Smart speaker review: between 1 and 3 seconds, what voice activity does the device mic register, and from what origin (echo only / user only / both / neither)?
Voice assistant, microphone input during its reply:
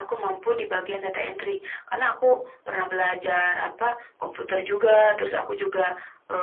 echo only